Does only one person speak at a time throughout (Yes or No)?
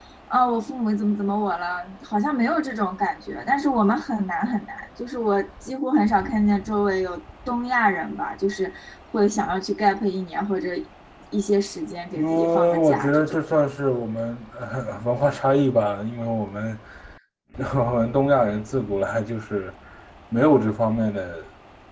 No